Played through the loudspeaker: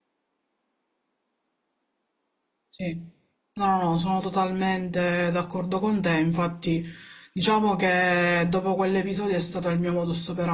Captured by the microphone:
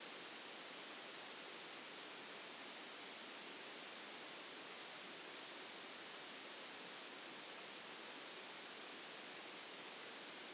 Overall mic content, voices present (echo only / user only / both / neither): neither